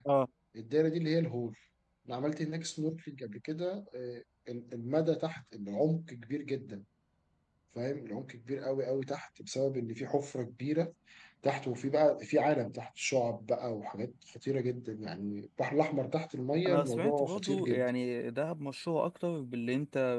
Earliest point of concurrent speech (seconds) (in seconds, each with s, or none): 16.6 s